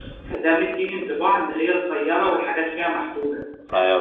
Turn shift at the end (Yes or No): Yes